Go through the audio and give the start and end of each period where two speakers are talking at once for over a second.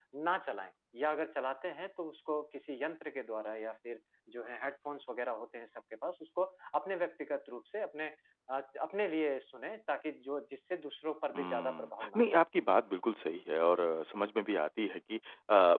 11.3-12.8

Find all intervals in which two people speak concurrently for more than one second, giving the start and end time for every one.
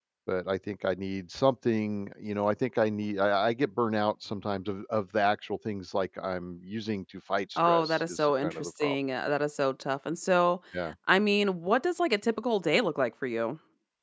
7.6-9.0

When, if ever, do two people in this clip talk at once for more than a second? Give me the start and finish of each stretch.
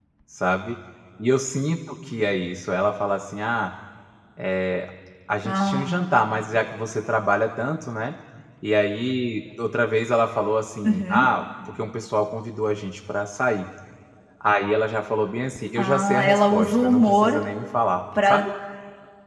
15.8-17.4

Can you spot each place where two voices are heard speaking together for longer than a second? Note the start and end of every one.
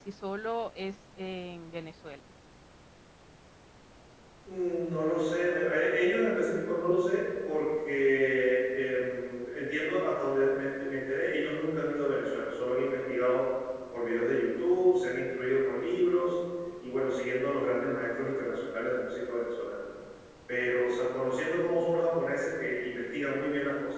none

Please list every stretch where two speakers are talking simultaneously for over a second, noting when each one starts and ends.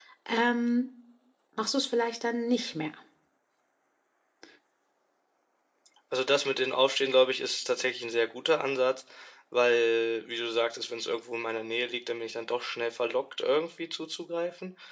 none

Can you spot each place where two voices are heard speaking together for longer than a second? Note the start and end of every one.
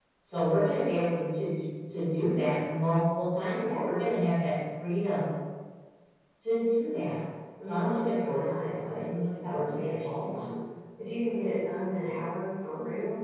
7.6-10.3

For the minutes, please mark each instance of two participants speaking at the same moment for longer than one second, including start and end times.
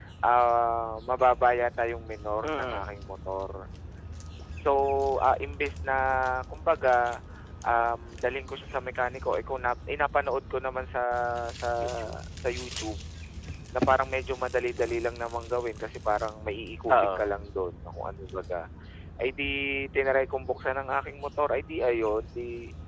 none

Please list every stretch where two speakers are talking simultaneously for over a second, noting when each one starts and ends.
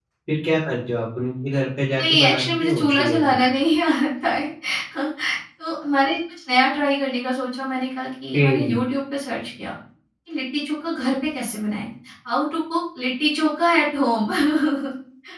2.0-3.4

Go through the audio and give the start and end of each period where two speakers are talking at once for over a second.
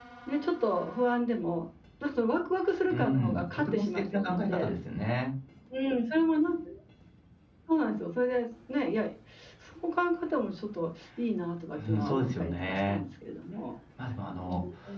2.9-4.7, 11.8-13.0

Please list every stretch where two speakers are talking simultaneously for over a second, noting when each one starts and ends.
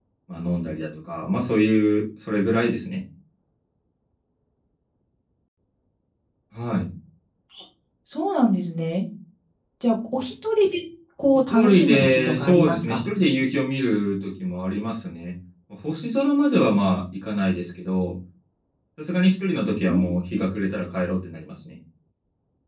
11.5-13.0

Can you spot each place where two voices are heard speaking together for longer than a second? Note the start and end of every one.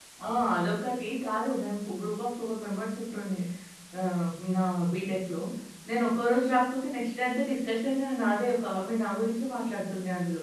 none

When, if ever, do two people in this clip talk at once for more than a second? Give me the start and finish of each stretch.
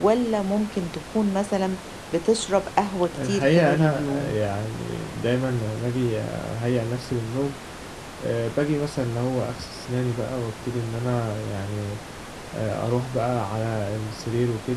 3.1-4.4

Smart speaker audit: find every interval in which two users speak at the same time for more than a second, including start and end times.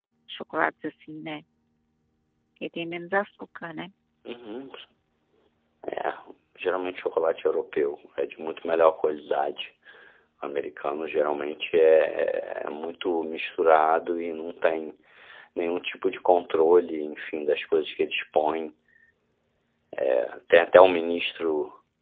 none

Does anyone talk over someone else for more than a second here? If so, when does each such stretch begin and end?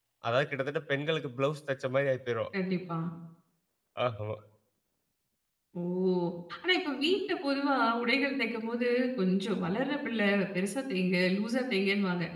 none

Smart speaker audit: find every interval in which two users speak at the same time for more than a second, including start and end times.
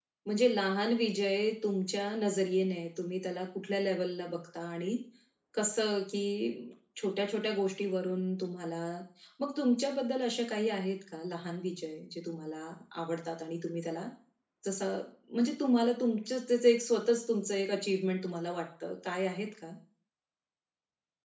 none

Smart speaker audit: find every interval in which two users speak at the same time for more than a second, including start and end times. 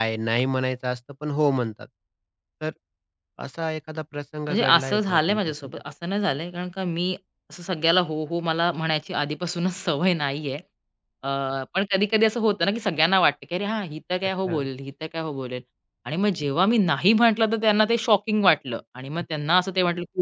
4.5-5.7

